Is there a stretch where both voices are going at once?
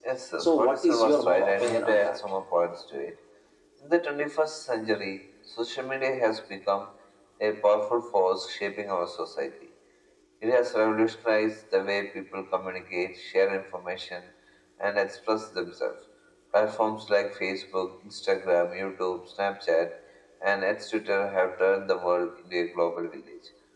Yes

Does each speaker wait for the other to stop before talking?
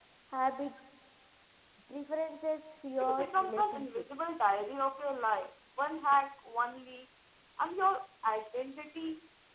No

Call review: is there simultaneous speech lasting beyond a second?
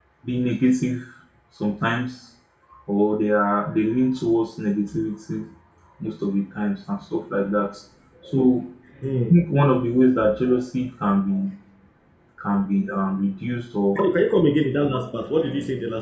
No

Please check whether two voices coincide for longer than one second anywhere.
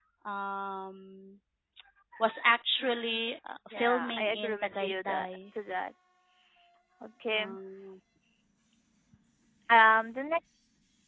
Yes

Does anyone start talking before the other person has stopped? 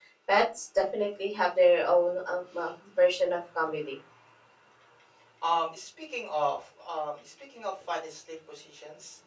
No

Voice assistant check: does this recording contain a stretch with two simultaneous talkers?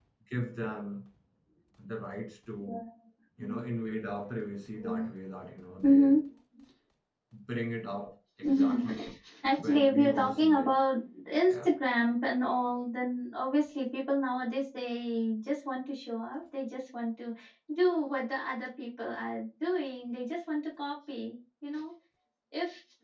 Yes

